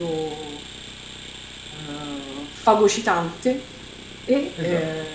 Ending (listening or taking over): listening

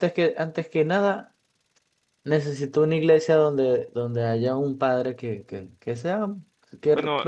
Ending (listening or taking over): listening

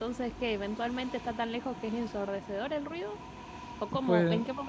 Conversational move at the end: listening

